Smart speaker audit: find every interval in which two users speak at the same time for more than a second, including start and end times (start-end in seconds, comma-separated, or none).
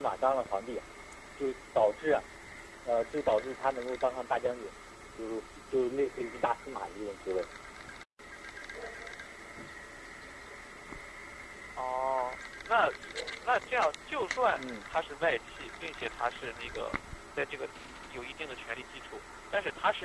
none